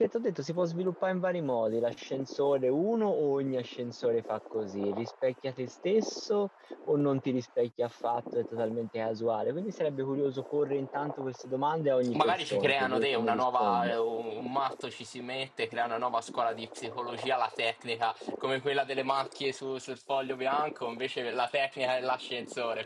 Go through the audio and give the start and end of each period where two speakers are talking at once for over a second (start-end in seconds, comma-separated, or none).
12.1-13.9